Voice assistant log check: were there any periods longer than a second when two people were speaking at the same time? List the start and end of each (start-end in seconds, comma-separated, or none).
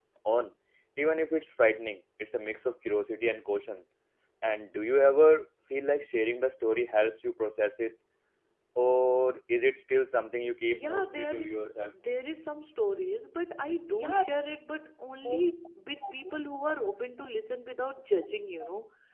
10.7-11.9